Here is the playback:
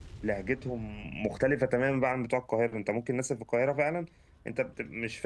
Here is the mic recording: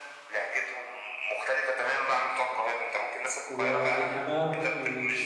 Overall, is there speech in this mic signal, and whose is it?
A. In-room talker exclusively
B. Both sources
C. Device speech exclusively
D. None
B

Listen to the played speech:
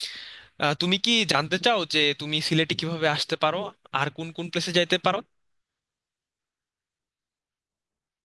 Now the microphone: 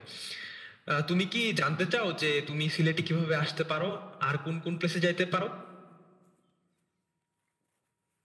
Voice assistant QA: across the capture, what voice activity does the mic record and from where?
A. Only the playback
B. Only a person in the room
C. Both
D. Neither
A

